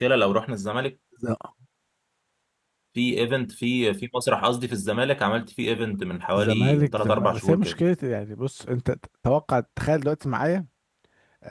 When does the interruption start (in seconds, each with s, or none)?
6.4 s